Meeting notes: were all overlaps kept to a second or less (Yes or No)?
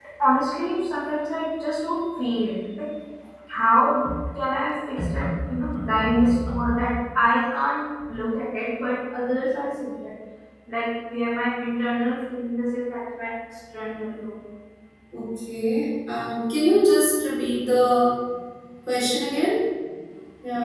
Yes